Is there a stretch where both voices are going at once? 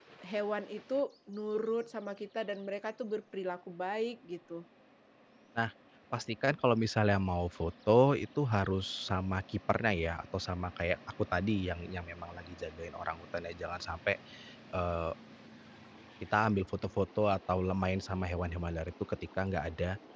No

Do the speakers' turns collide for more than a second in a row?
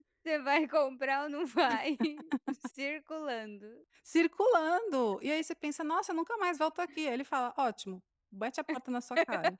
No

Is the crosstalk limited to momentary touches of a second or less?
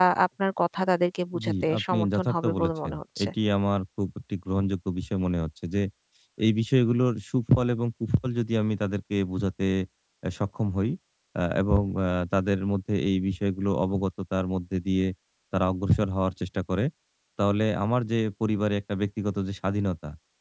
No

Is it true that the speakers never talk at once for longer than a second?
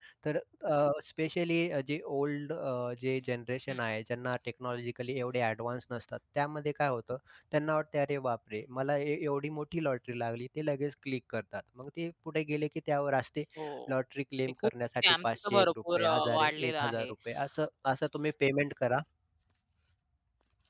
No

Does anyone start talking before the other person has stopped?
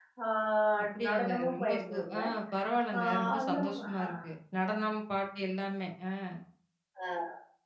Yes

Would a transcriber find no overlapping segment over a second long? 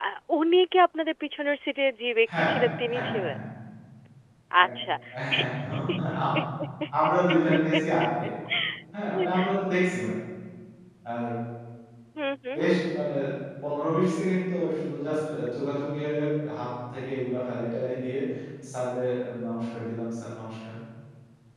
Yes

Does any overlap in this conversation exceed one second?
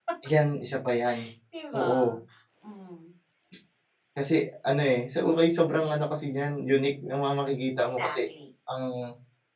No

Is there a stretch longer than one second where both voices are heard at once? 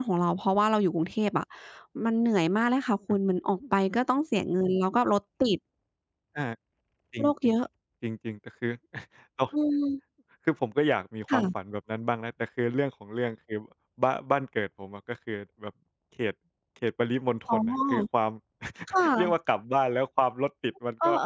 No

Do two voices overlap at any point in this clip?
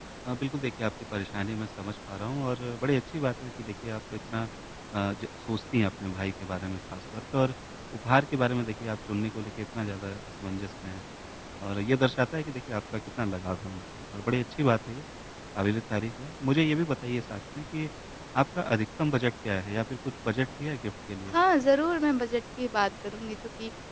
No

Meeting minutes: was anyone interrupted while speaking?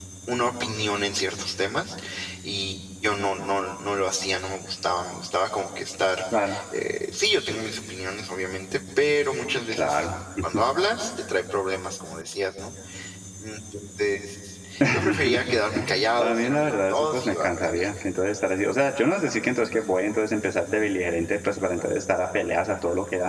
Yes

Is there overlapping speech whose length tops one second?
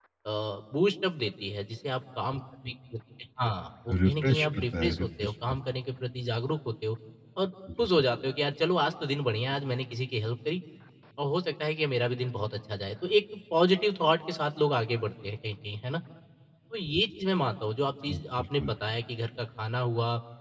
Yes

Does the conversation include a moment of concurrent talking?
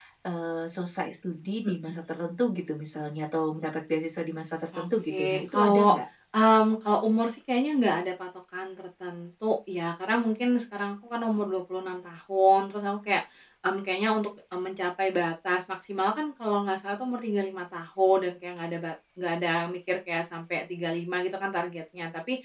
Yes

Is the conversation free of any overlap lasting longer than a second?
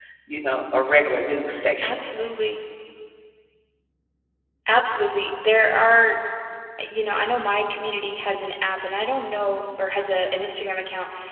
Yes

